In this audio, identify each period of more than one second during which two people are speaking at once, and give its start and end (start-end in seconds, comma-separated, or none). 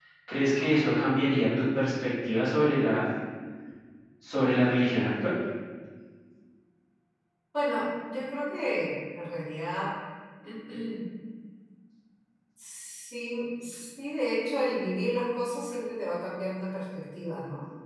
none